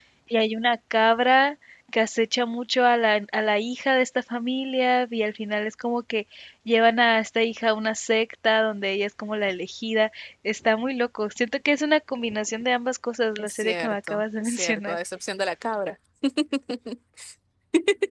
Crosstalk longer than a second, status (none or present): present